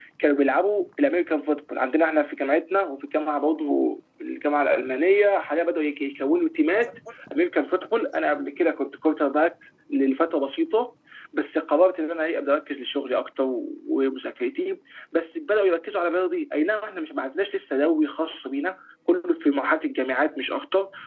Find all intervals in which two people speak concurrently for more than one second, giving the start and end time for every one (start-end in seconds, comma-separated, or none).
none